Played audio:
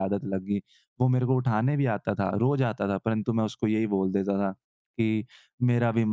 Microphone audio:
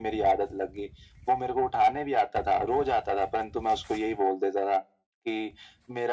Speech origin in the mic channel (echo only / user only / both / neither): echo only